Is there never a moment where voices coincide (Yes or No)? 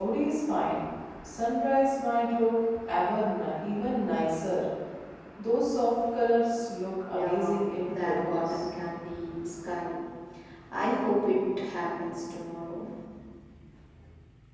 No